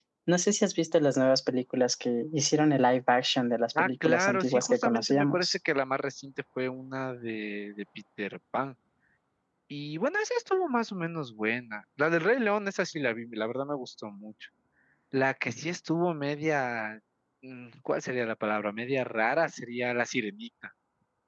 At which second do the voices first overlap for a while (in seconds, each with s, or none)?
3.8 s